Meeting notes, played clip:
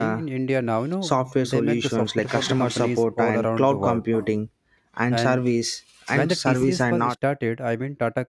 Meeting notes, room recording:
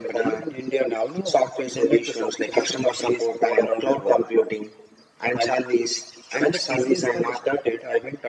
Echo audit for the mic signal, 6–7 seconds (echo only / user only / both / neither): echo only